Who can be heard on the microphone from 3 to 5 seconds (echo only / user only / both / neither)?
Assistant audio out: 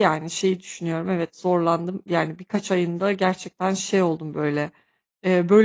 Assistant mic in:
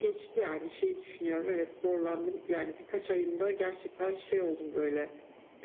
echo only